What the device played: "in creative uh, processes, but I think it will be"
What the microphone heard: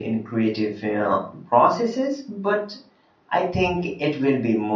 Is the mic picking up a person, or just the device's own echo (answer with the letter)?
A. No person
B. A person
A